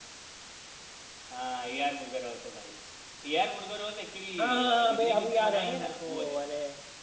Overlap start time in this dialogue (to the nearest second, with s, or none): 4 s